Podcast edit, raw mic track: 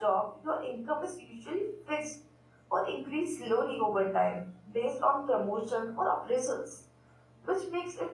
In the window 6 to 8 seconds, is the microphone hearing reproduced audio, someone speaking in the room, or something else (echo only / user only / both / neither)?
user only